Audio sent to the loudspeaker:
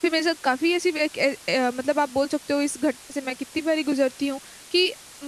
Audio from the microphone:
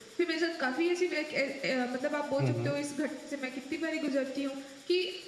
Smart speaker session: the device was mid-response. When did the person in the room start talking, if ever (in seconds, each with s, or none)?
2.4 s